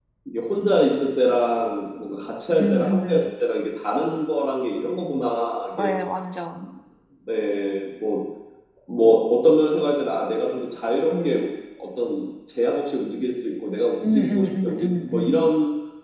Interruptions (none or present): present